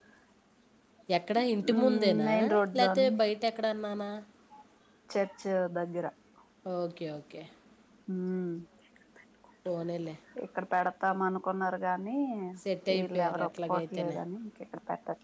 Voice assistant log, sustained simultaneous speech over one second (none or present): present